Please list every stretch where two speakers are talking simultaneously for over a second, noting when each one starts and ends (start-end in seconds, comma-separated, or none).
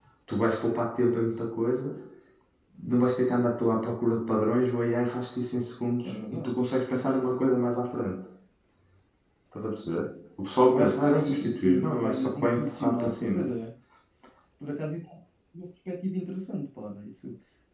10.7-13.4